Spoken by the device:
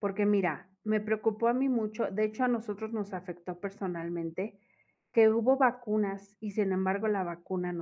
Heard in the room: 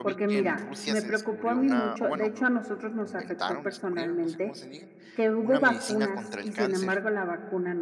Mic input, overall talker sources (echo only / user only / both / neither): both